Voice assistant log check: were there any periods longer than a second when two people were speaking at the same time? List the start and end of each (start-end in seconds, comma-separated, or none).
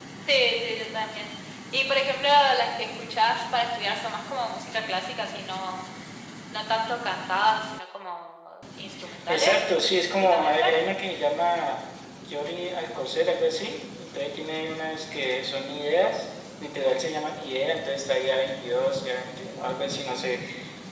9.3-10.6